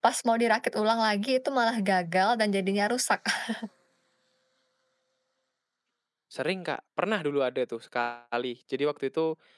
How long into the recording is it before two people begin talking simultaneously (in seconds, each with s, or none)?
none